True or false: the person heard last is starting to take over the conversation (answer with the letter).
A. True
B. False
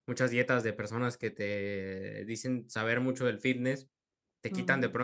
B